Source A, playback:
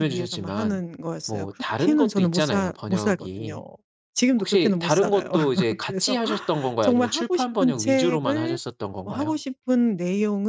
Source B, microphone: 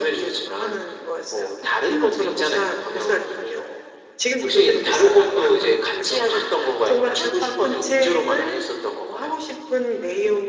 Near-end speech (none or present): none